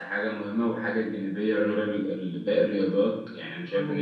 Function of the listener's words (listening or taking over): taking over